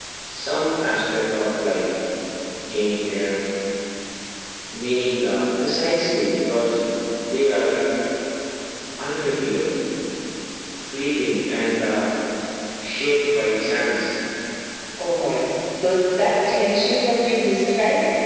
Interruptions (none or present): none